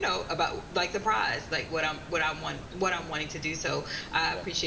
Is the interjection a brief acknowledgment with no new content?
Yes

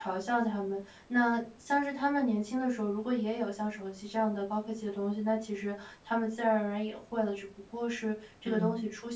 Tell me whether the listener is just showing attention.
Yes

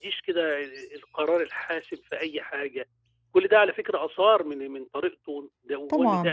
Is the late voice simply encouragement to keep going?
No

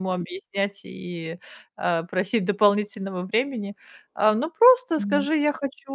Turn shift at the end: No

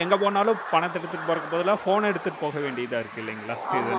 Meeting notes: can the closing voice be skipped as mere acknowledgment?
No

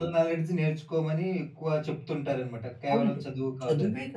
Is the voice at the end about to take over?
Yes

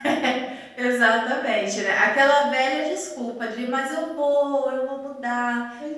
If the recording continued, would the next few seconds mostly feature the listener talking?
Yes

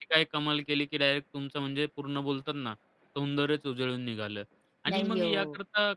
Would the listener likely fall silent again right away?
Yes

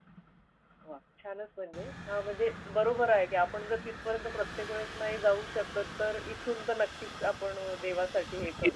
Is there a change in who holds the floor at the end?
Yes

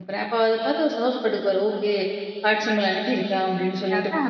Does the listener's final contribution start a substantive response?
No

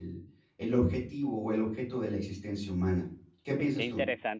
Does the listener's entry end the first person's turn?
Yes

